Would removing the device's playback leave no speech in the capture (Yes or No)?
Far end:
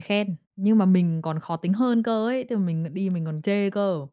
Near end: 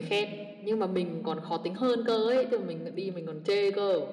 Yes